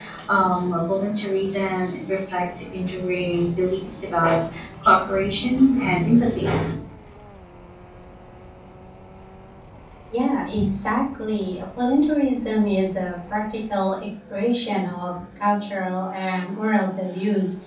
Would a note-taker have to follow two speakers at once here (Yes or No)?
No